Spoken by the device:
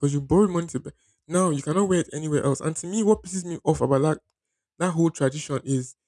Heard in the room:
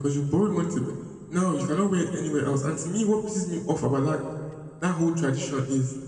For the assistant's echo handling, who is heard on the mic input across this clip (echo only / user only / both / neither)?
echo only